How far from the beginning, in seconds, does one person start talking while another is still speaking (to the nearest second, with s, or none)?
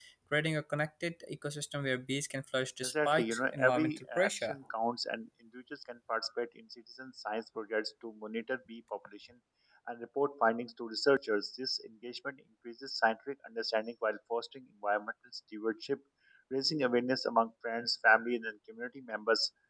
3 s